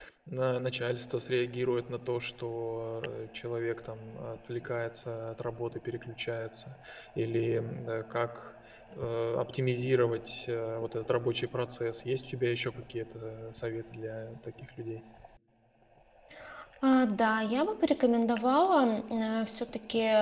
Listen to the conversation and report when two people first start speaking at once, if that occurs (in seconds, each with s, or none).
none